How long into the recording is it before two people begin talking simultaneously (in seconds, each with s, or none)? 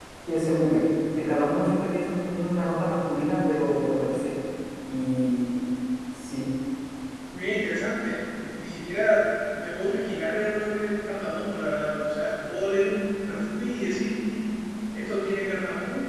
none